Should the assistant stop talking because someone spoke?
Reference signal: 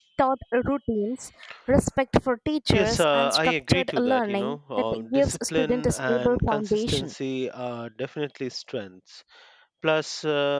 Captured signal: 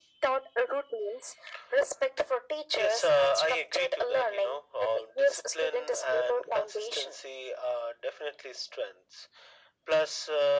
No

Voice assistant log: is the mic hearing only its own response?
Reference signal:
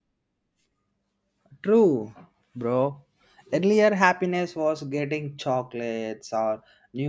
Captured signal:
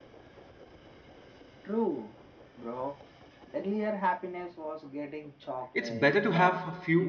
No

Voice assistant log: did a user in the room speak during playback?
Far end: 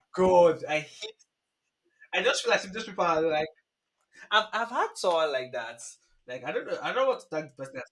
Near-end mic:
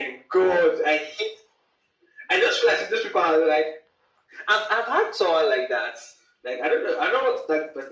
No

